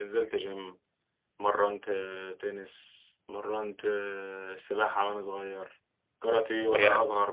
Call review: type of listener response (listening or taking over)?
listening